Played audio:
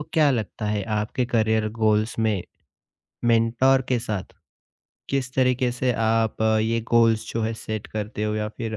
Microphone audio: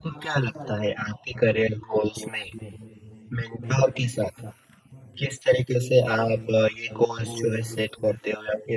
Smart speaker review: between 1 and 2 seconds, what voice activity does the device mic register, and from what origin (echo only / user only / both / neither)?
echo only